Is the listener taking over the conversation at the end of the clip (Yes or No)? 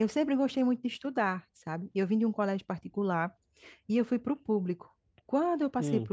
No